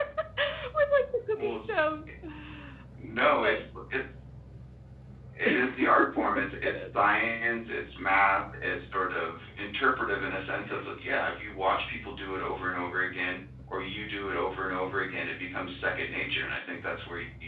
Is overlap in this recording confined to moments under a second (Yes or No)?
No